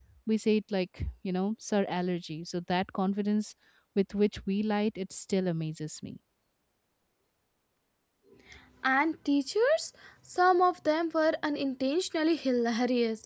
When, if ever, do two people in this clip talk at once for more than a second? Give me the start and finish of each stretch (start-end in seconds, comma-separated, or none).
none